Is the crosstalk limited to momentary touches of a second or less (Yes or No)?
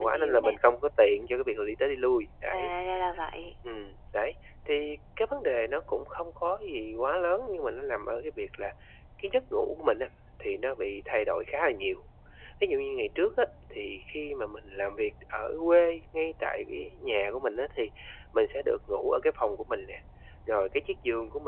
Yes